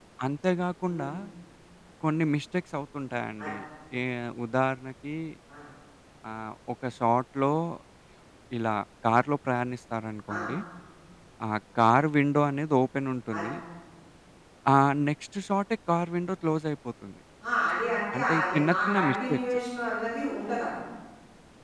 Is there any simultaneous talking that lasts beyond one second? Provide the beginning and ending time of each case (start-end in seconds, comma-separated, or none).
18.2-19.4